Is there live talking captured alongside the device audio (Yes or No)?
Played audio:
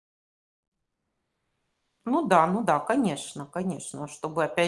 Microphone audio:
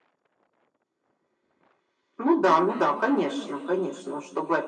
No